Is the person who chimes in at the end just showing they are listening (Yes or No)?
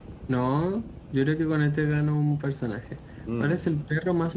Yes